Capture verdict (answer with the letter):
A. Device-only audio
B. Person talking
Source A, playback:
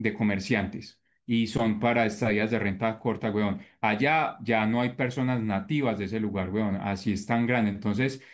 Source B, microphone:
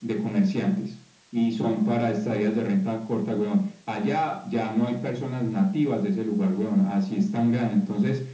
A